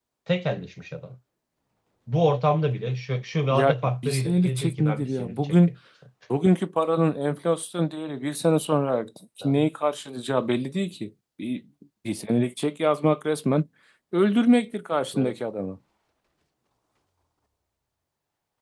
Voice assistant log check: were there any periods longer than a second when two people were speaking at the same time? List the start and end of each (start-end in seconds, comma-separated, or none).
3.5-5.7